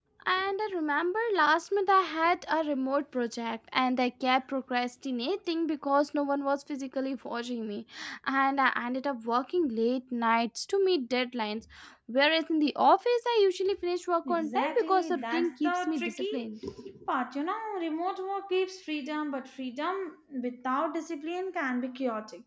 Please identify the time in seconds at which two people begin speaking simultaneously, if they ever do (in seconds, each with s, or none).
14.2 s